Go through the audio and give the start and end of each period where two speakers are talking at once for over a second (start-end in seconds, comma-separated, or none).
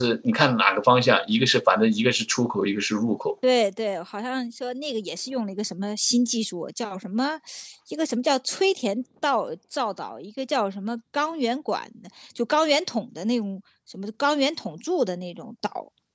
none